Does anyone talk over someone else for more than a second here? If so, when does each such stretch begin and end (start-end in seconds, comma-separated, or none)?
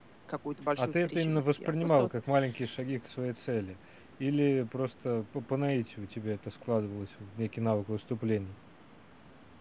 0.8-2.1